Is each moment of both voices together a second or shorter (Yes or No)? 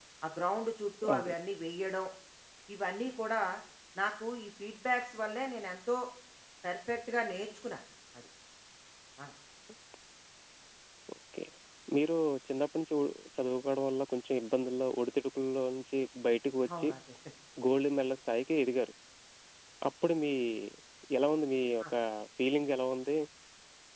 Yes